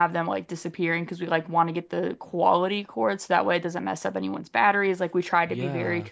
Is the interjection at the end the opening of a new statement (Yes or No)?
Yes